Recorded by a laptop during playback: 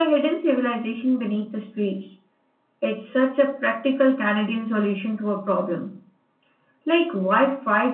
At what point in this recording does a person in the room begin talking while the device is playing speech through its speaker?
none

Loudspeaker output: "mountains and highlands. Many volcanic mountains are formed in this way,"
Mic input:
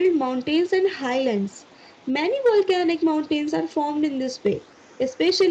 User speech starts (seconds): none

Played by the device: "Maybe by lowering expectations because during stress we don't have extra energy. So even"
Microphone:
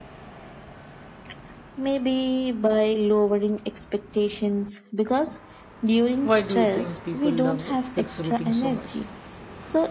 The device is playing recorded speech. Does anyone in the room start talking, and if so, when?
6.2 s

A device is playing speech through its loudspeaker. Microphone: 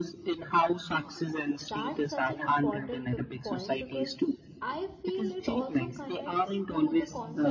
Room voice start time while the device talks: 0.9 s

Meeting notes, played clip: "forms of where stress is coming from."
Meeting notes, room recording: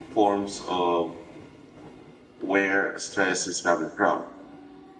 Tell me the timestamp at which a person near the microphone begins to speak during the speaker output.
none

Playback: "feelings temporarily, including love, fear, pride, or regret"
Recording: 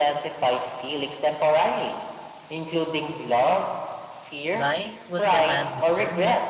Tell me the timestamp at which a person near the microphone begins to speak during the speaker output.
4.5 s

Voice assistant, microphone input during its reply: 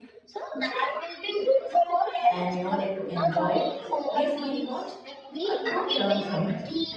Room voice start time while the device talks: 2.3 s

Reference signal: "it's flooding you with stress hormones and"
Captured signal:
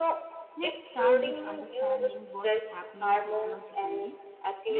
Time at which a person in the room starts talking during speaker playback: 0.6 s

